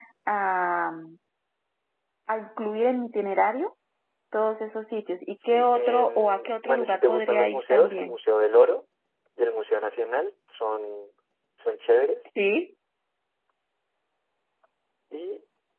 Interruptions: present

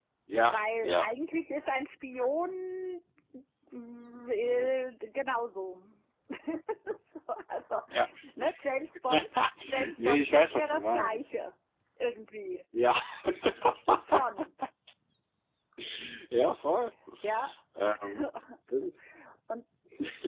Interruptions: present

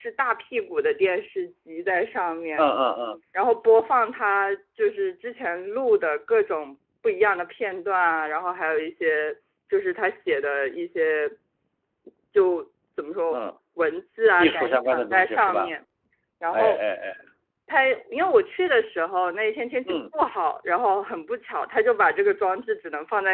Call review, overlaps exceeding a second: present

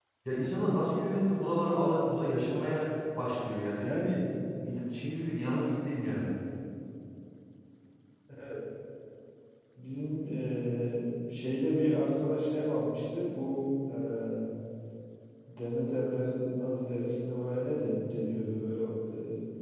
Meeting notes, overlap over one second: none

